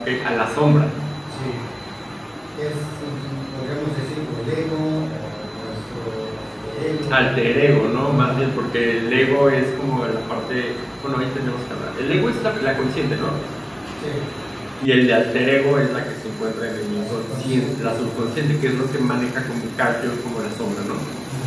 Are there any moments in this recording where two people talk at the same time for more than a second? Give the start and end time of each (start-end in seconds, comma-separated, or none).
16.8-18.4